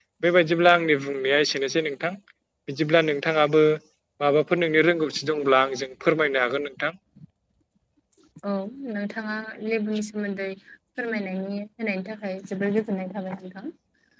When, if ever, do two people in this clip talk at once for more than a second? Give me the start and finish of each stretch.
none

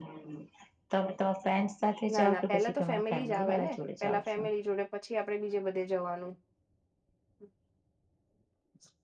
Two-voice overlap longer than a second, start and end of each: 2.1-4.5

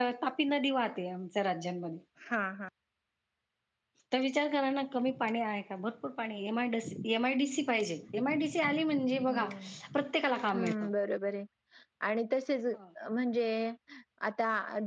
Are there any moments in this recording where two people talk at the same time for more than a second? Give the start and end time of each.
none

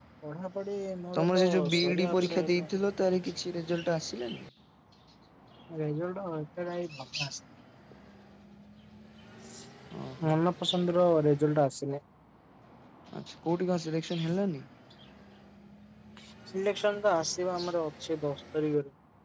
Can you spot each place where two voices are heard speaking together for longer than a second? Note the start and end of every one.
1.2-2.7

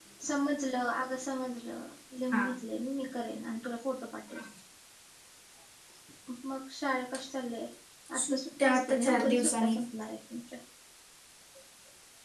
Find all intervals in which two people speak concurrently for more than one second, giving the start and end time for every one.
8.1-9.8

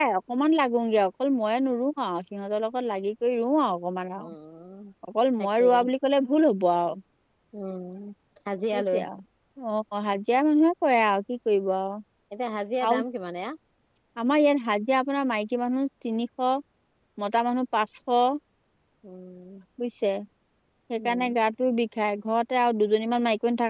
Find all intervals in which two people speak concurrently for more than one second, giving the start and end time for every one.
none

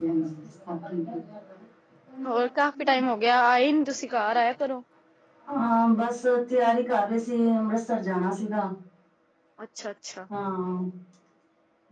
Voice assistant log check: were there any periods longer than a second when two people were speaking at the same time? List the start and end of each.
none

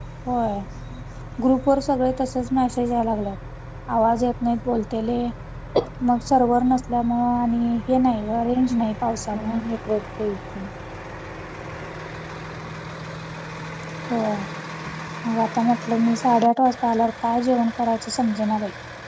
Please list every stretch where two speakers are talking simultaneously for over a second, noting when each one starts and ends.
8.1-9.6

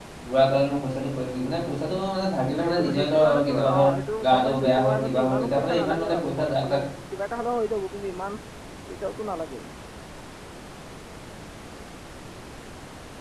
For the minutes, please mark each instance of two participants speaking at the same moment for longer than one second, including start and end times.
2.6-3.9, 4.2-6.8

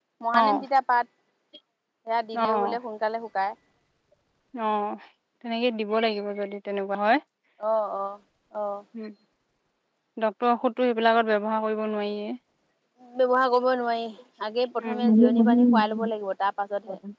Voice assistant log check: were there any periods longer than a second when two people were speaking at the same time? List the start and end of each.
14.8-16.1

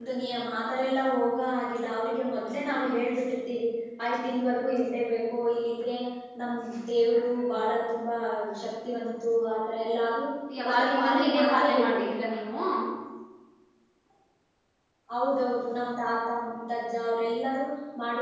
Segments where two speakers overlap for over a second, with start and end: 10.7-12.0

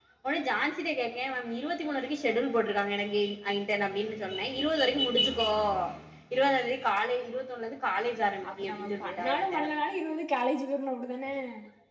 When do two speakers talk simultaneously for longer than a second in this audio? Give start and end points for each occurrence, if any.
8.5-9.7

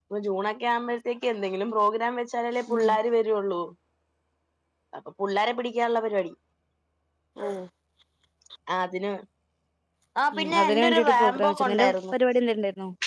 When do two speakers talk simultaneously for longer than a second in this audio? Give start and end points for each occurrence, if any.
10.3-12.1

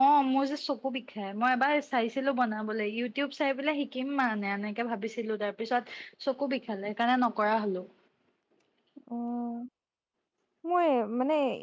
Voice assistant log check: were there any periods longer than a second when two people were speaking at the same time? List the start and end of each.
none

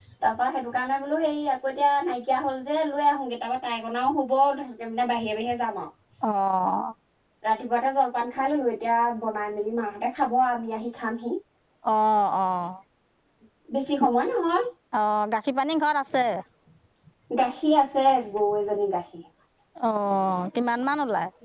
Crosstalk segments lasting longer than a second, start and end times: none

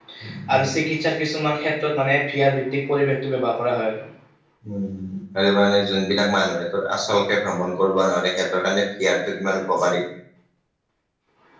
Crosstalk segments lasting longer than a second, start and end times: none

